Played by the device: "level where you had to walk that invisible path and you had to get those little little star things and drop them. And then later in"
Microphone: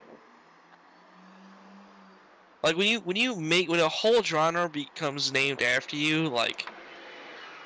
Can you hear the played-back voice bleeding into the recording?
No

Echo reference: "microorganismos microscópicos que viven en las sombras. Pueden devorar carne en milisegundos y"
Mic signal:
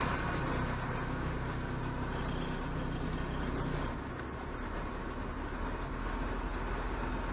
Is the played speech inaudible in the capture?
Yes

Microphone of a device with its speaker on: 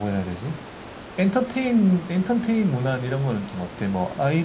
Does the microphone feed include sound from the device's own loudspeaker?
No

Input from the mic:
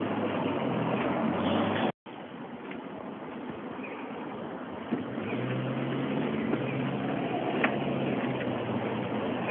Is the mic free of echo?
Yes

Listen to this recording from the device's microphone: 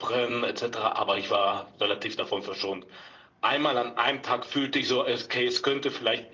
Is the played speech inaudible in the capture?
No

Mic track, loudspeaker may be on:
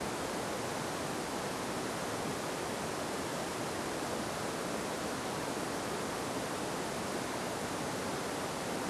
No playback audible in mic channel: Yes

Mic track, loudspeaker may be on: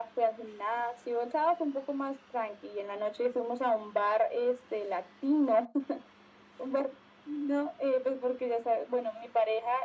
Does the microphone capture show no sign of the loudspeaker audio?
No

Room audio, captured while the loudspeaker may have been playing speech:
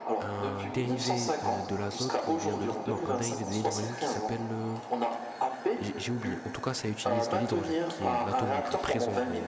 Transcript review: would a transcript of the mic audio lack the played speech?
No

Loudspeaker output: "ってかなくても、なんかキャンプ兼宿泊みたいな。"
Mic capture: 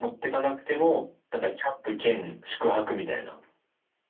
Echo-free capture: No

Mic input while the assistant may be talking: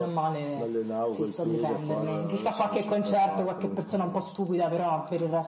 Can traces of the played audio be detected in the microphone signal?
Yes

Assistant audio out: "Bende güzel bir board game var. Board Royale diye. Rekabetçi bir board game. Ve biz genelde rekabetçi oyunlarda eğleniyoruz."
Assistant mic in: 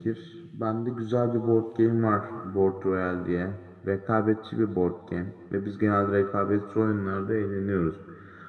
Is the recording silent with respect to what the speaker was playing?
No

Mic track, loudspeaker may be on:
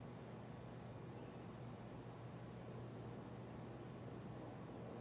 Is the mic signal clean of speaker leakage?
Yes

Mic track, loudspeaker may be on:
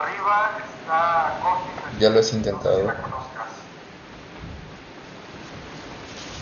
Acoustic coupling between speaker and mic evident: Yes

